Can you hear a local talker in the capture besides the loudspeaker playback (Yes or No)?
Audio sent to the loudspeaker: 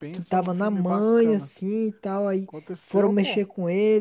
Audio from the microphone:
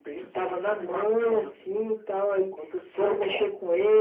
No